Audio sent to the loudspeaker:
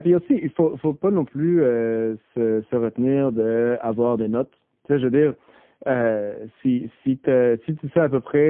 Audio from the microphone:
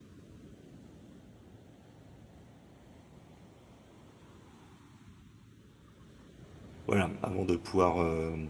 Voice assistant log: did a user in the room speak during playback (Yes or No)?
Yes